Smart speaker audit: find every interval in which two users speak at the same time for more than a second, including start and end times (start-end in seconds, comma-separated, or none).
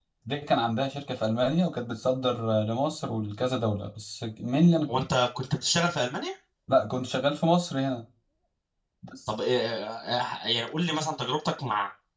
none